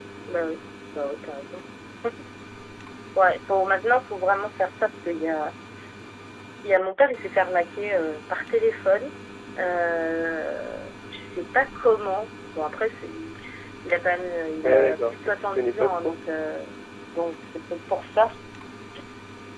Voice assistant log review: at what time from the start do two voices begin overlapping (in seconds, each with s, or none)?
14.6 s